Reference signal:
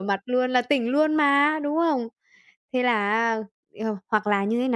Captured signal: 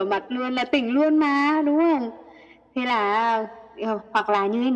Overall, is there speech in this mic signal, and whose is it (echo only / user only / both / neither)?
echo only